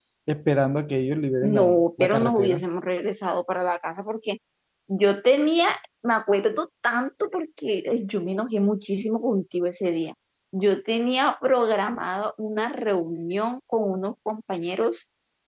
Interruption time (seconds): 1.4 s

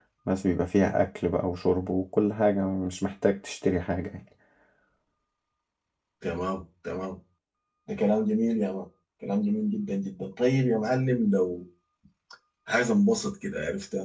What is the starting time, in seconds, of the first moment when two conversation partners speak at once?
none

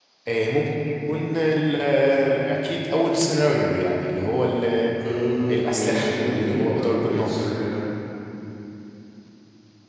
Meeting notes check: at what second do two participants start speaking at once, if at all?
5.5 s

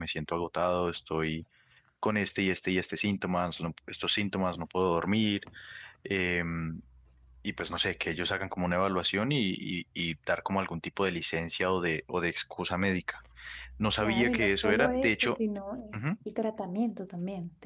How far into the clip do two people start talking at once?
14.0 s

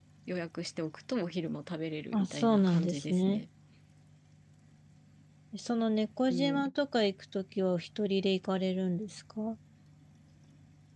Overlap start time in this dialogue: 2.1 s

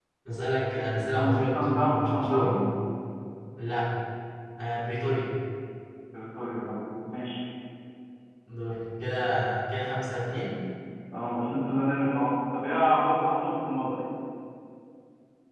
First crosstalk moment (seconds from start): 1.2 s

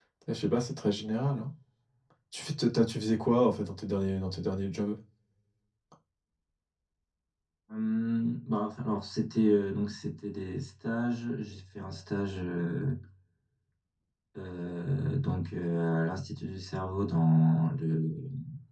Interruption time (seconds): none

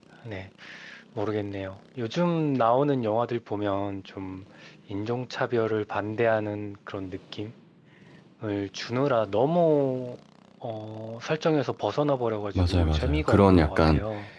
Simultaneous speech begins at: 12.6 s

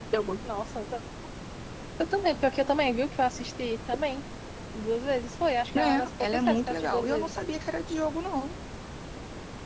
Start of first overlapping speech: 5.8 s

